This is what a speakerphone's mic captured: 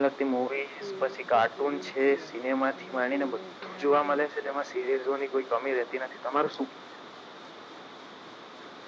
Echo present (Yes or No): Yes